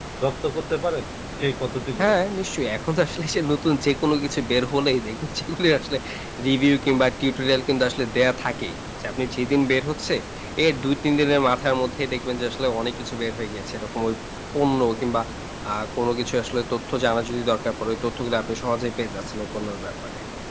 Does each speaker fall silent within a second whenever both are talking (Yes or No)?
Yes